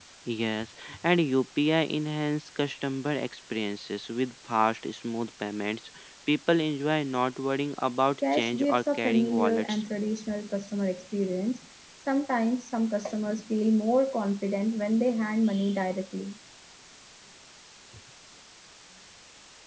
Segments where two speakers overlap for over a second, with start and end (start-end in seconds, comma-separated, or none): 8.3-9.8